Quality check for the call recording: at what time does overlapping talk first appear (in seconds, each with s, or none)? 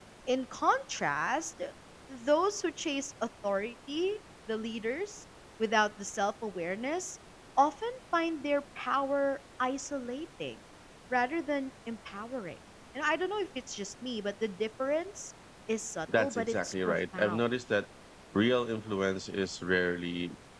16.1 s